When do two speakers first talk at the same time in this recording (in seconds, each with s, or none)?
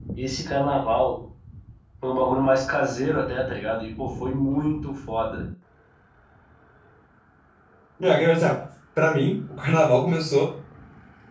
none